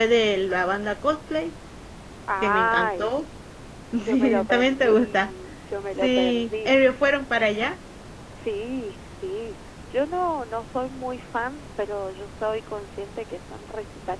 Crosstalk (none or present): present